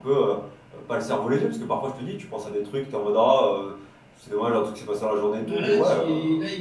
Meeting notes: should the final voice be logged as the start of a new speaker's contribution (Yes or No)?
Yes